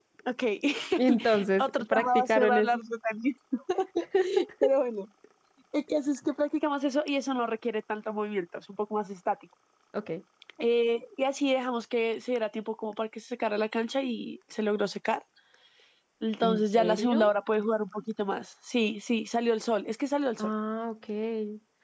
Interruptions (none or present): present